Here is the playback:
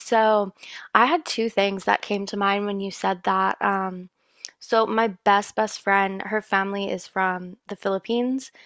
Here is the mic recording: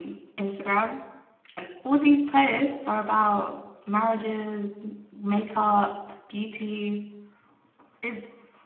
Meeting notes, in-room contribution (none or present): present